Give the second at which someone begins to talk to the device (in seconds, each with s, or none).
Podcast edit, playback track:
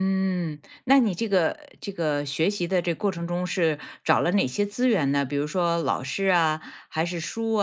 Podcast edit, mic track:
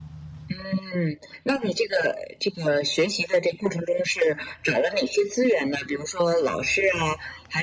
none